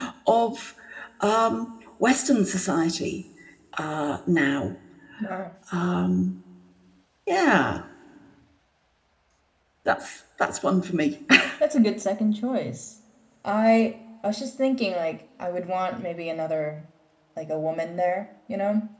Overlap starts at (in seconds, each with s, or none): none